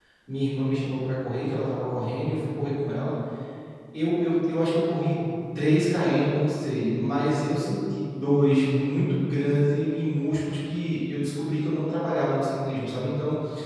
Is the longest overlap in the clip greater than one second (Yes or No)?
No